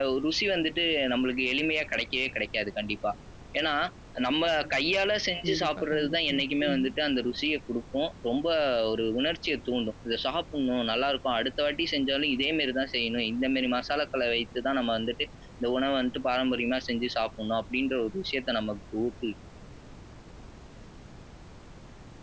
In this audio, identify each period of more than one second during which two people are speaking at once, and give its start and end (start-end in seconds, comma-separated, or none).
5.4-6.9